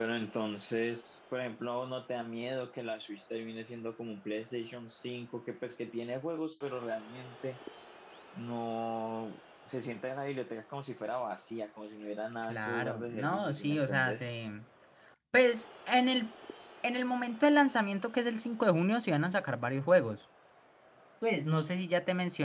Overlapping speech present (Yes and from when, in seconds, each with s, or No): Yes, from 12.4 s